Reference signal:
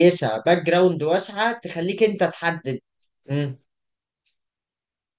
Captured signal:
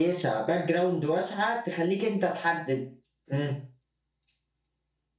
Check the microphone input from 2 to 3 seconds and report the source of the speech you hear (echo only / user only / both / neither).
echo only